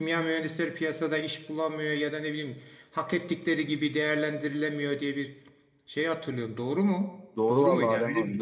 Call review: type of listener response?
taking over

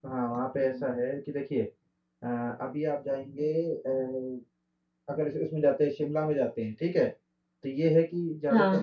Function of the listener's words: listening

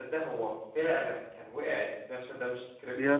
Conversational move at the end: listening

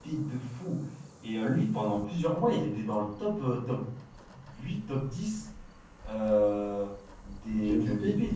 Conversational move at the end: listening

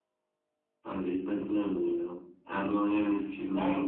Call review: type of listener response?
taking over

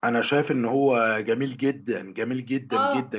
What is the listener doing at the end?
taking over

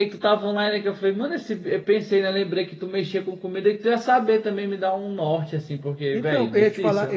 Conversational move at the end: taking over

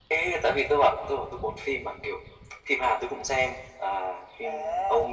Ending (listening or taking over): taking over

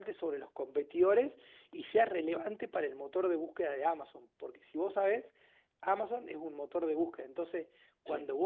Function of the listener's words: listening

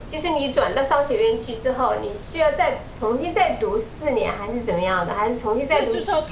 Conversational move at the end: taking over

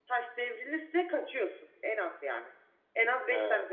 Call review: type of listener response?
listening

